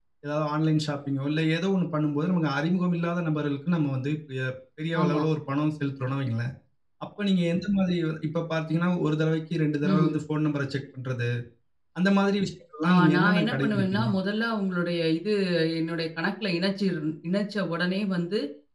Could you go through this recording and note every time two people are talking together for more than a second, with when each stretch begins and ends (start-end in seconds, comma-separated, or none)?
12.9-14.1